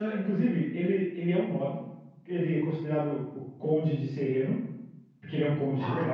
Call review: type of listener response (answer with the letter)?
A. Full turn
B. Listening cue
B